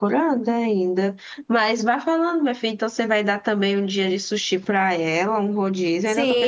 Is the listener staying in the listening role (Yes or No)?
No